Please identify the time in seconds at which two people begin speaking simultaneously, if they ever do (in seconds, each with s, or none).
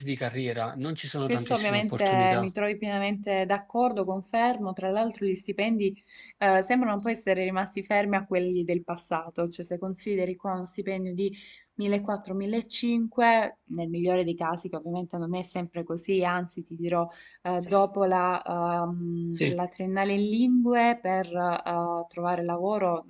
1.3 s